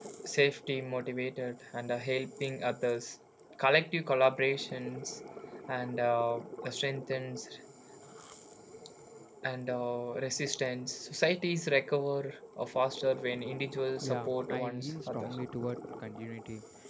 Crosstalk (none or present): present